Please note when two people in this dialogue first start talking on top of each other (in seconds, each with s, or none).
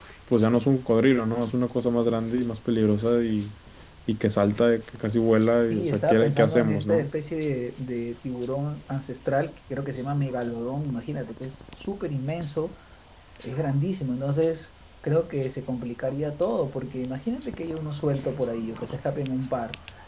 5.7 s